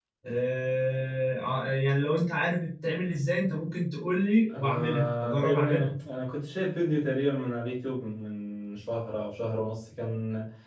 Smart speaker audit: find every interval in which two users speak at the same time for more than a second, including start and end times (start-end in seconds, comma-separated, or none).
4.5-5.9